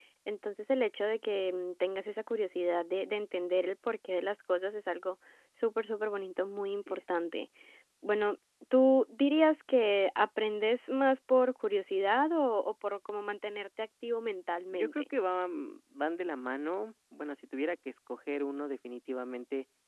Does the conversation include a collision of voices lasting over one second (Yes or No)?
No